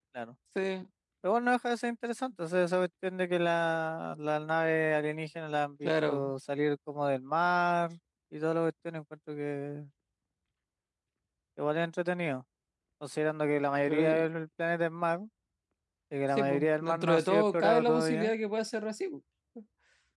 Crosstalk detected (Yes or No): Yes